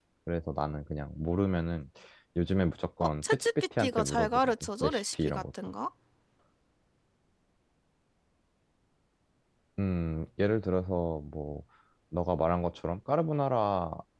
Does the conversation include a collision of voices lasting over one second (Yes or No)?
Yes